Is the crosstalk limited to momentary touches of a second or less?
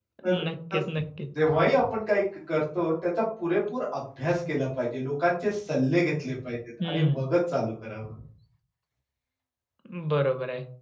Yes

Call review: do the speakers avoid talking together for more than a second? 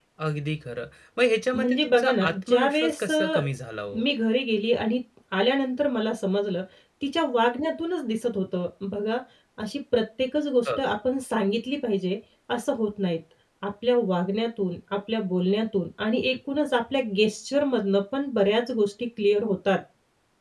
No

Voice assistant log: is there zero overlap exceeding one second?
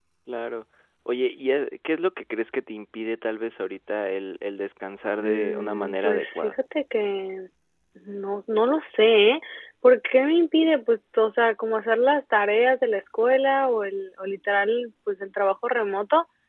No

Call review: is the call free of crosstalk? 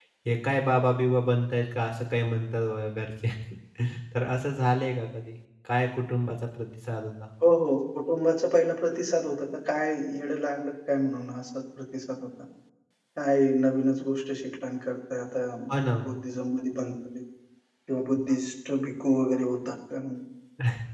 Yes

